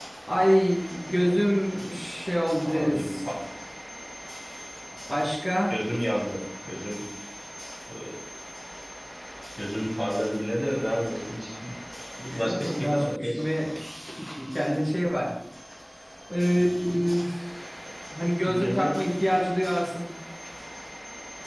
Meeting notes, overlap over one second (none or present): present